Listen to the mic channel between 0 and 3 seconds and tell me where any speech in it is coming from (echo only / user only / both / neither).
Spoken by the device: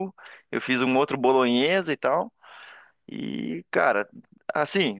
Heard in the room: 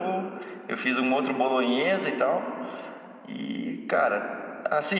echo only